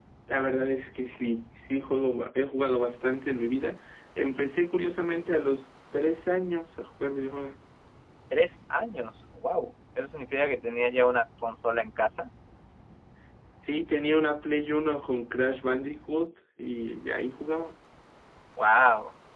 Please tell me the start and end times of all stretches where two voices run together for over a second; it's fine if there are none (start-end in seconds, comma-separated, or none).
none